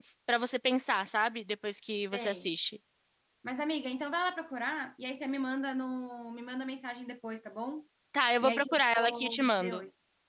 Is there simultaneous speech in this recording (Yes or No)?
Yes